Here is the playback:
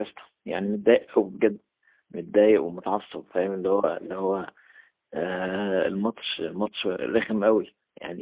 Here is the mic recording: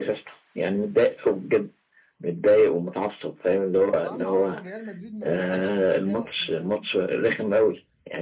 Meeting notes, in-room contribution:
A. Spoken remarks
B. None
A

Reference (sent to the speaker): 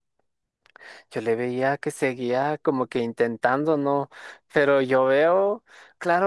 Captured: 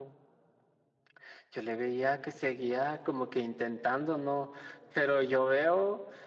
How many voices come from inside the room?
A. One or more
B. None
B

